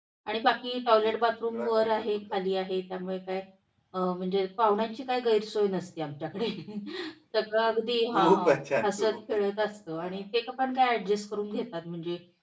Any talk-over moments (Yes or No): Yes